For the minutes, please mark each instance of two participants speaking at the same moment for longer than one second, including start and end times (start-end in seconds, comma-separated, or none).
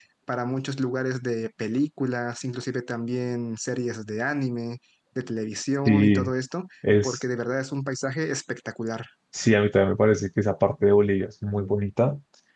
none